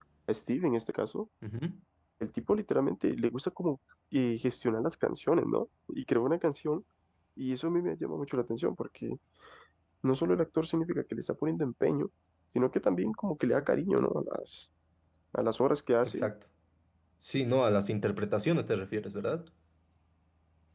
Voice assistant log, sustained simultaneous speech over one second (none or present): none